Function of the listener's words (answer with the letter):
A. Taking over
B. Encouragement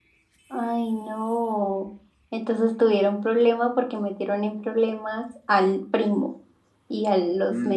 A